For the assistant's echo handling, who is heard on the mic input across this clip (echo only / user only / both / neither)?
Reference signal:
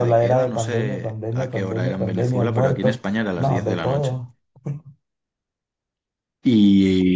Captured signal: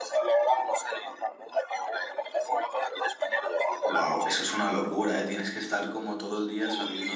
both